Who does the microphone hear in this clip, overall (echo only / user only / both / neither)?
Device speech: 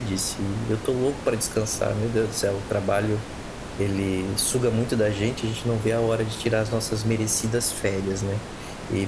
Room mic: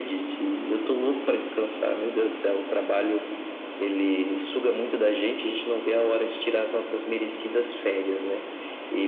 echo only